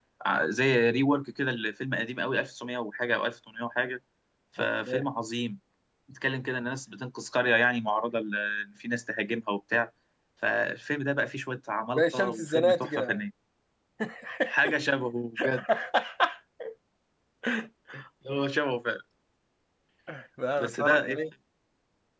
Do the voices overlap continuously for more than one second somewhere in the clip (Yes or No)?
Yes